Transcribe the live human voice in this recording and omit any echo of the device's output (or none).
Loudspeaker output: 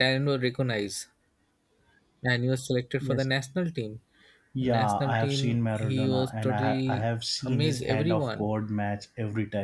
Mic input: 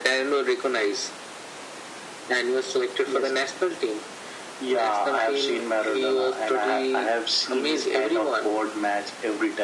none